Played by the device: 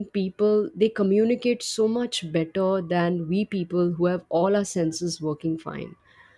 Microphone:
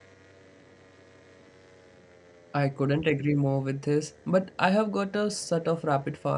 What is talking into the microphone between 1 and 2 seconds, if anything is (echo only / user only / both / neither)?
neither